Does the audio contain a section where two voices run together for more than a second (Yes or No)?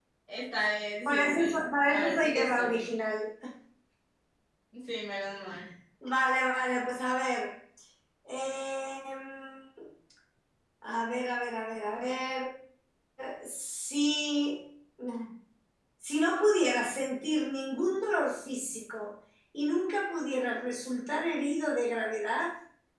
Yes